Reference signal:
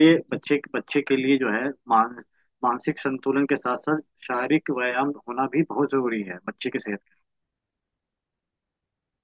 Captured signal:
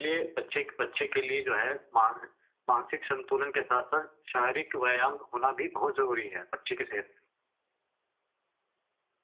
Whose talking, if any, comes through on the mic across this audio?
echo only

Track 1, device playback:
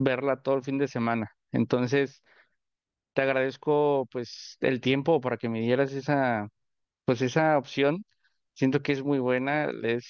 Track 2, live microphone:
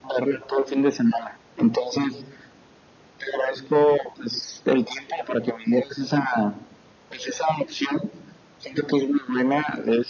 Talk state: echo only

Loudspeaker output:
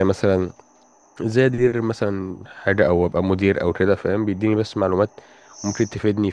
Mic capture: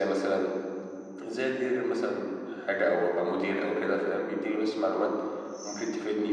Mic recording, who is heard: echo only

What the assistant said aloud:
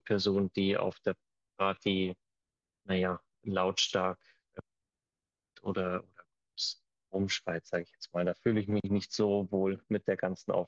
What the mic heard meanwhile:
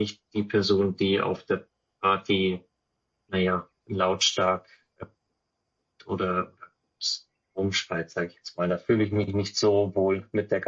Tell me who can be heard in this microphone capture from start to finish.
echo only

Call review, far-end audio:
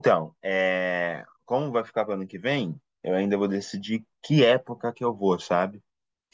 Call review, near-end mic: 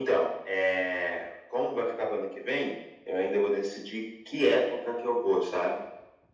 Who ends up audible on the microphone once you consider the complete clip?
echo only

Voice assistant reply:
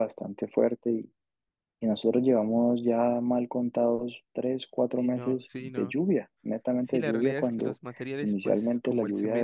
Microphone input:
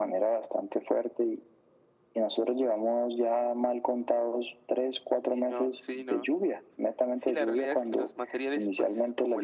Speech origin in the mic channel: echo only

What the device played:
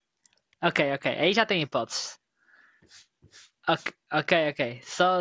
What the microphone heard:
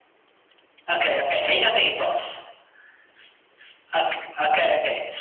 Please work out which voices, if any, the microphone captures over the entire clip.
echo only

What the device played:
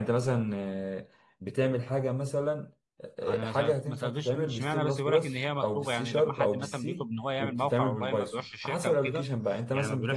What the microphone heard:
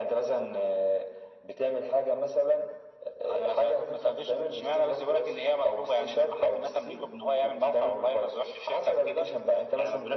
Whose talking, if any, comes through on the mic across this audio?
echo only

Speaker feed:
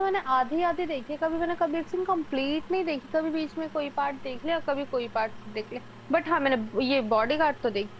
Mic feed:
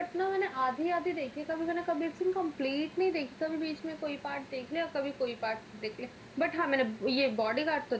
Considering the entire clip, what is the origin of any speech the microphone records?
echo only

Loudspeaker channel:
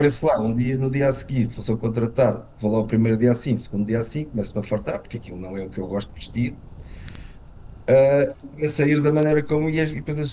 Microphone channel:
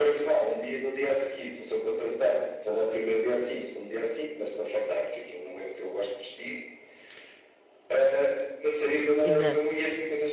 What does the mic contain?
both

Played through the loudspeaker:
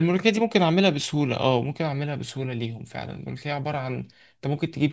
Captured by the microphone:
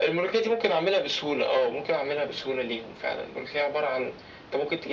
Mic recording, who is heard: echo only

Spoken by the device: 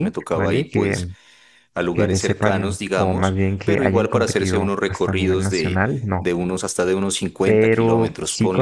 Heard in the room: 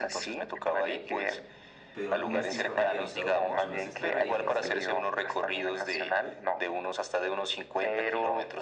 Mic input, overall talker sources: both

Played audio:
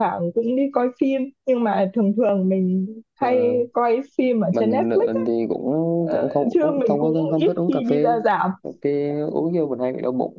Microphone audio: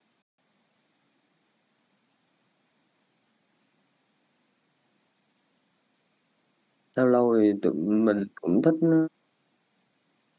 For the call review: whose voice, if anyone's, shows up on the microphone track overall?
user only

